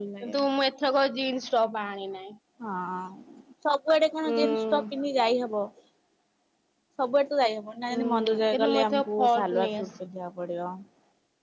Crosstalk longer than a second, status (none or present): present